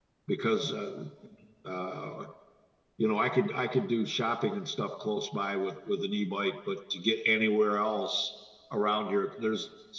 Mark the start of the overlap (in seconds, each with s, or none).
none